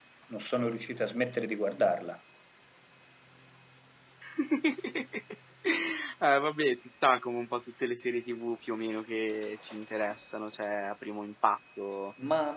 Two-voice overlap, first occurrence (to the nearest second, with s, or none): none